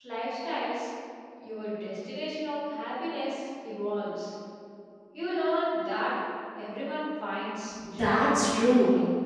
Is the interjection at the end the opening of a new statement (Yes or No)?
Yes